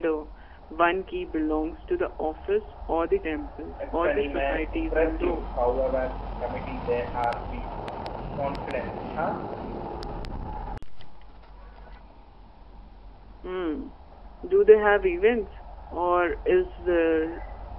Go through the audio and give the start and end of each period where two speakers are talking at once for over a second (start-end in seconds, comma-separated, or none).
3.9-5.4